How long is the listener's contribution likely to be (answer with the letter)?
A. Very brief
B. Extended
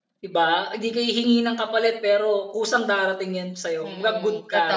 B